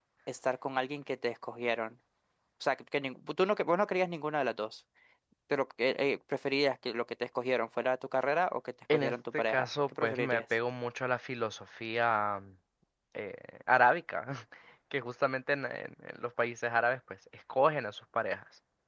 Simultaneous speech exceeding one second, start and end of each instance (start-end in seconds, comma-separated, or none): 8.9-10.4